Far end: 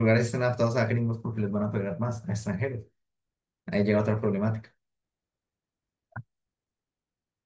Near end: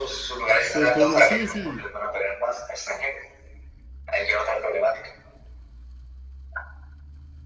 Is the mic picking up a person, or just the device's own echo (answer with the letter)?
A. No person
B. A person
B